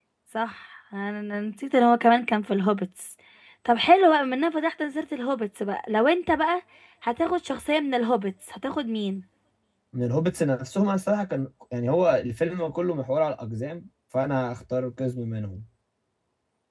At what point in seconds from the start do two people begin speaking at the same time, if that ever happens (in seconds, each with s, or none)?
none